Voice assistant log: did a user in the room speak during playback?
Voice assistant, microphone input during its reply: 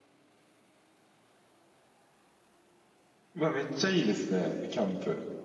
Yes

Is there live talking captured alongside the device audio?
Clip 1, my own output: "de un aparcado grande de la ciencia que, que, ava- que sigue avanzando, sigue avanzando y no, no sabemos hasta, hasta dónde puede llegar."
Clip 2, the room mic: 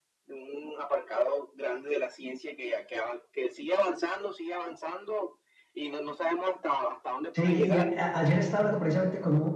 Yes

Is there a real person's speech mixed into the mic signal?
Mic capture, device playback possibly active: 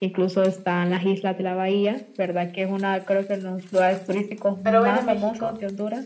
Yes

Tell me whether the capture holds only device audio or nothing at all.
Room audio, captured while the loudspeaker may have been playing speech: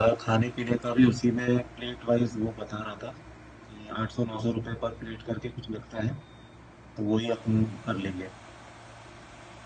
Yes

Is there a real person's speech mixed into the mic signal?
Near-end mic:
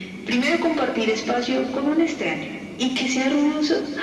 No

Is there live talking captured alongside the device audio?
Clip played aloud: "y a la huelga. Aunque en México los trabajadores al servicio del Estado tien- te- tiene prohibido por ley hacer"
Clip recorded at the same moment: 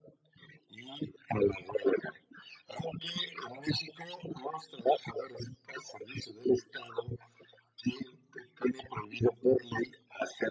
No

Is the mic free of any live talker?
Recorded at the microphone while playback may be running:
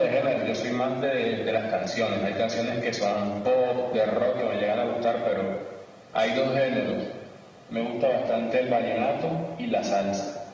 Yes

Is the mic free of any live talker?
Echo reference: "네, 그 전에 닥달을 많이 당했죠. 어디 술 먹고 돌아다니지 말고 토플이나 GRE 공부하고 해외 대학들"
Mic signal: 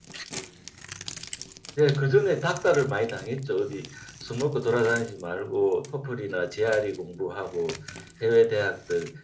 Yes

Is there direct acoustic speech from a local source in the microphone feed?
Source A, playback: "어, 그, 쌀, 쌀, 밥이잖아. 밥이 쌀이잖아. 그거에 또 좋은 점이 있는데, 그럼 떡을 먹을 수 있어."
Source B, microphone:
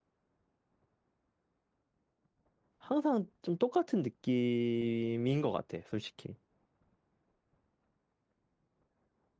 Yes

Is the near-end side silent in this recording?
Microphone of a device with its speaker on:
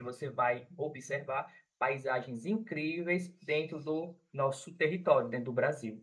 No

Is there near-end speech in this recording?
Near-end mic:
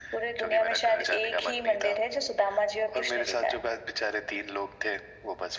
No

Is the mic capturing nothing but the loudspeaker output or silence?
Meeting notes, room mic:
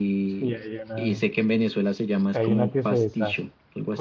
No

